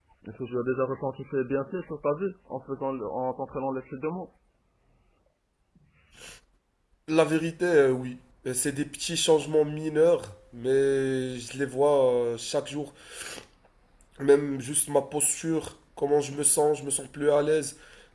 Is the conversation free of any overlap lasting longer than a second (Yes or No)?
Yes